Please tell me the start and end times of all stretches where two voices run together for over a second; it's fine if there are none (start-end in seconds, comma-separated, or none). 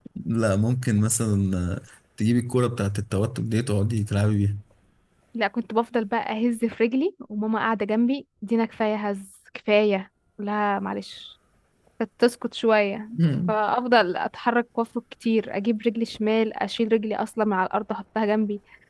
none